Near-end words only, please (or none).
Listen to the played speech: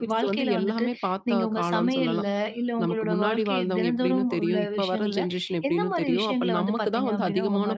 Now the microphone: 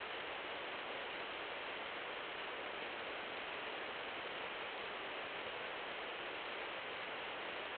none